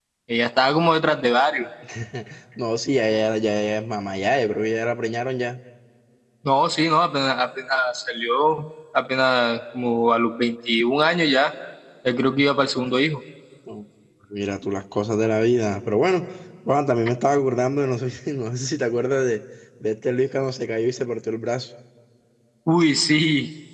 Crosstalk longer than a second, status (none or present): none